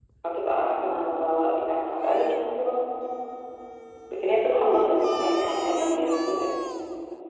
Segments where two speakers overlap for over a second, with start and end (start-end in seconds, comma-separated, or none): 4.5-6.0